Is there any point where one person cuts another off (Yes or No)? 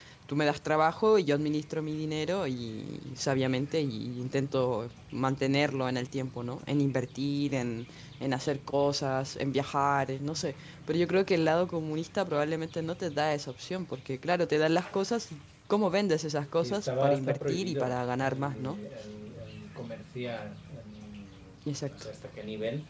Yes